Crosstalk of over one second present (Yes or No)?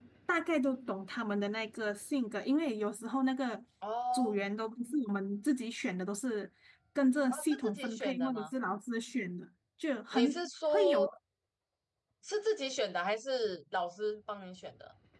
Yes